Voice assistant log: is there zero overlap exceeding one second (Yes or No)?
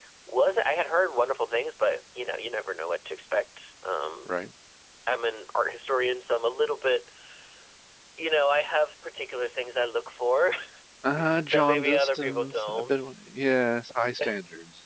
No